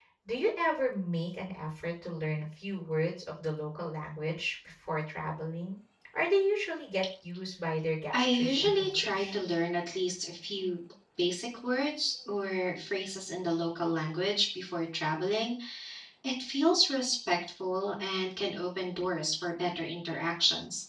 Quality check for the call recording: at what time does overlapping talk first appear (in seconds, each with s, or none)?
8.1 s